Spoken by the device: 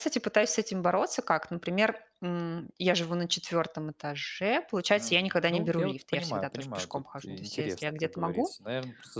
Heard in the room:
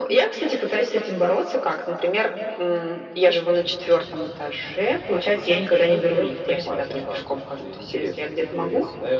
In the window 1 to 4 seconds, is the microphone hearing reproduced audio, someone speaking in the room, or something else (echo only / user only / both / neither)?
echo only